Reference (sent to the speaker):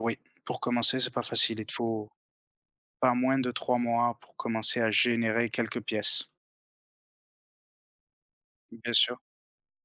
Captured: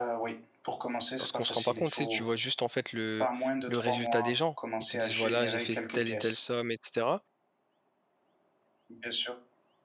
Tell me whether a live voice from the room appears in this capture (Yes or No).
Yes